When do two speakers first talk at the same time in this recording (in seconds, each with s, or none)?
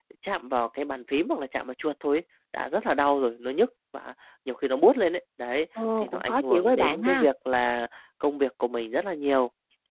6.0 s